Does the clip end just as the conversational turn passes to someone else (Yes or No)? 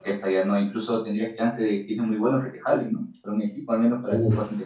Yes